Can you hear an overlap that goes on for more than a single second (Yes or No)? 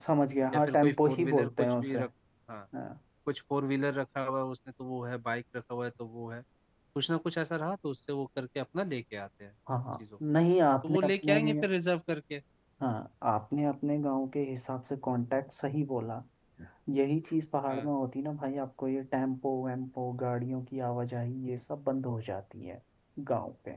Yes